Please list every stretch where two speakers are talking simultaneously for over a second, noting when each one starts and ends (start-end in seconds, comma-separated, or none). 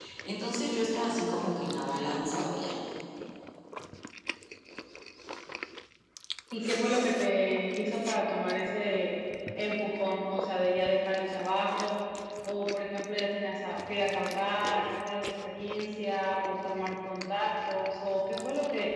none